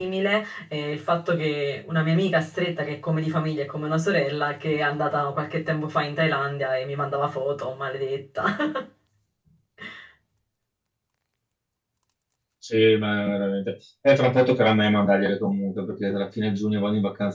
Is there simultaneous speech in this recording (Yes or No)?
No